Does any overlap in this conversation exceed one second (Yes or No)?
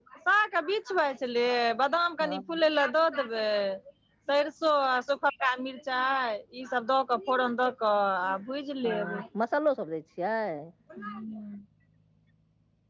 No